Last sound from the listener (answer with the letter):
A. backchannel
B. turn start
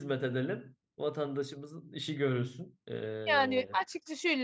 B